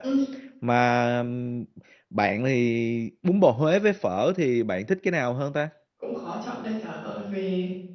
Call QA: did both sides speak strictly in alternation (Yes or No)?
Yes